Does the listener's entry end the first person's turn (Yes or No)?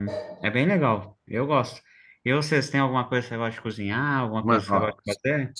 Yes